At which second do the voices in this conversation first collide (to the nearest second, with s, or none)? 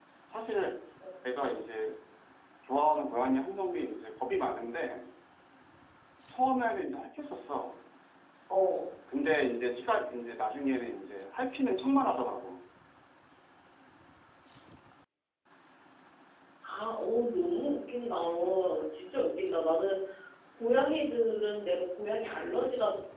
none